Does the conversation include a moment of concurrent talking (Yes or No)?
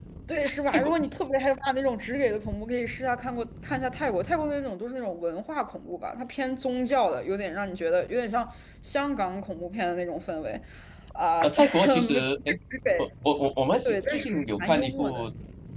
Yes